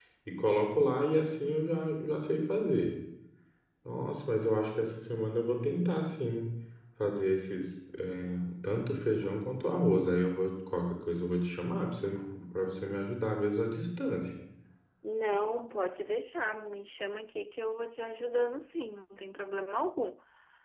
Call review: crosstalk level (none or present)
none